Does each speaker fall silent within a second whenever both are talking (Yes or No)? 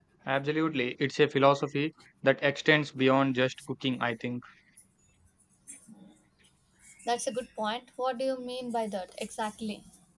Yes